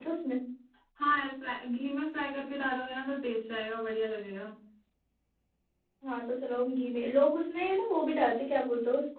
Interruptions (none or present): none